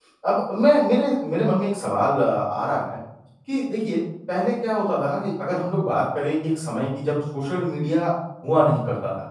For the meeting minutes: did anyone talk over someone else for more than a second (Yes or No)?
No